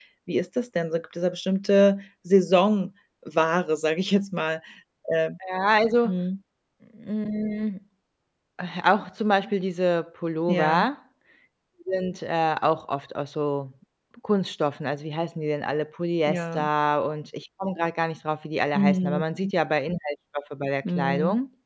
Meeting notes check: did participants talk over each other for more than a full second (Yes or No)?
No